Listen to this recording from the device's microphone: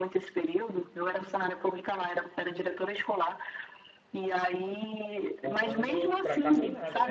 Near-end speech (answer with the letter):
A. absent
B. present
B